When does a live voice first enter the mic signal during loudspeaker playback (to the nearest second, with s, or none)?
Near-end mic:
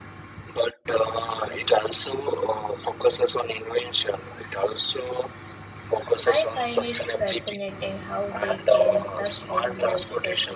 6 s